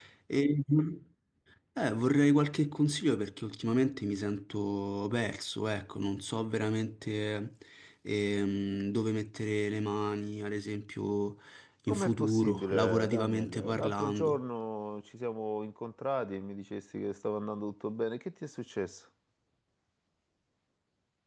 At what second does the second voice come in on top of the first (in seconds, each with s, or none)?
11.9 s